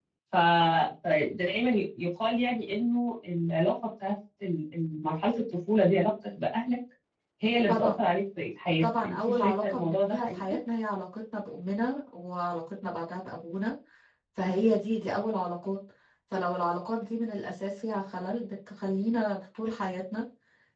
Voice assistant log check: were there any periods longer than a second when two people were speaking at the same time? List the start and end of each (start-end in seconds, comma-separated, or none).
8.8-10.4